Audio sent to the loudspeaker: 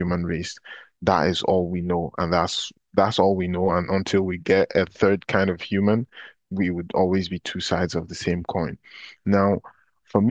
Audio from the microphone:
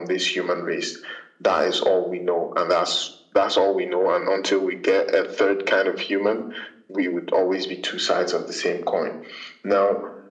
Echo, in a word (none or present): present